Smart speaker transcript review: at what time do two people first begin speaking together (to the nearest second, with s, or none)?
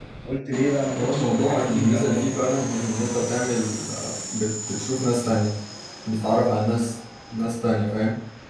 1 s